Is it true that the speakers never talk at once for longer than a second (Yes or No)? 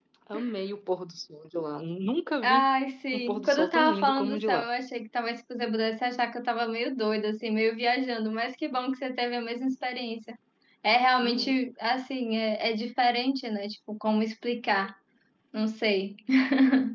No